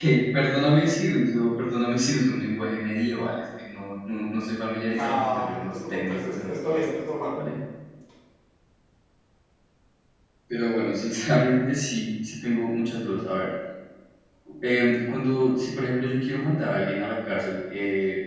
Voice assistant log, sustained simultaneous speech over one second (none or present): present